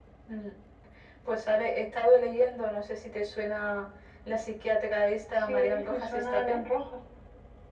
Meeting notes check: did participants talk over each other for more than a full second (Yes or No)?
Yes